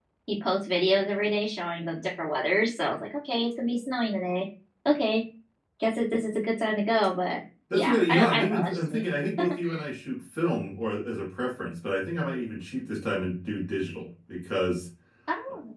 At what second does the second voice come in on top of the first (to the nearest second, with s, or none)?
8 s